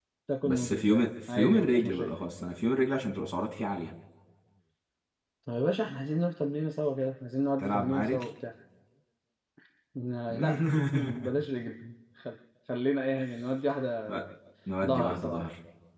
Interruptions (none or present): present